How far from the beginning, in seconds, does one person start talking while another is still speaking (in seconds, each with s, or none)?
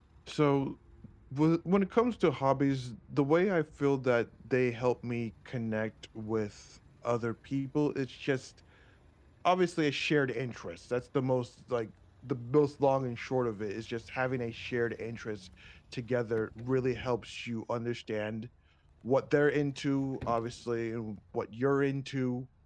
none